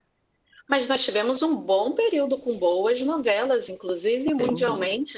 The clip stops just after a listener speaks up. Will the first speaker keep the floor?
Yes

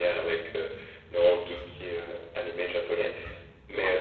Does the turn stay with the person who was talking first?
Yes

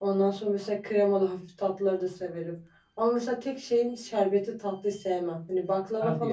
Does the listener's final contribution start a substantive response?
No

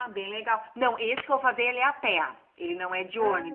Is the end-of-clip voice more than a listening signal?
No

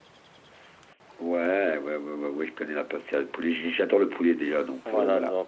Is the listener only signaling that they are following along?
No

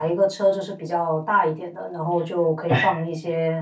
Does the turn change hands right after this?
No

